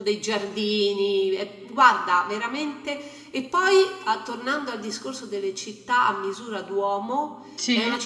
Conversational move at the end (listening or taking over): listening